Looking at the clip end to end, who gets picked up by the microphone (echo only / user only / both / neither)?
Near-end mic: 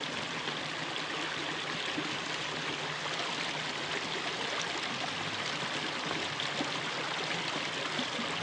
neither